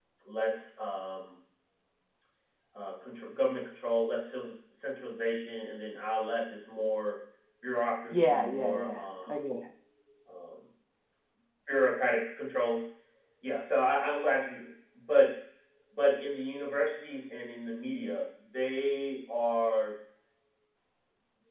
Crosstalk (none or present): present